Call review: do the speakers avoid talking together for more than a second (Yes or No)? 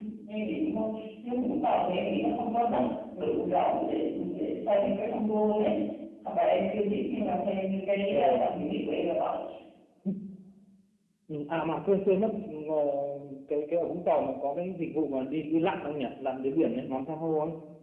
Yes